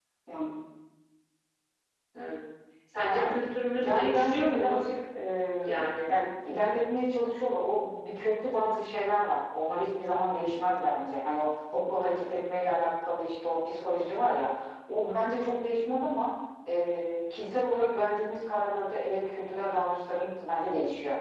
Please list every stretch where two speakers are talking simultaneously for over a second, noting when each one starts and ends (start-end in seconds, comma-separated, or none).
3.0-4.9